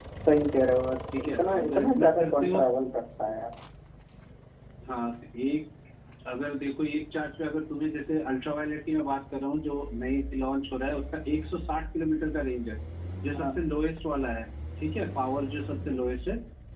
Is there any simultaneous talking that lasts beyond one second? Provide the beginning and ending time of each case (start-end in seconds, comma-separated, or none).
1.2-2.6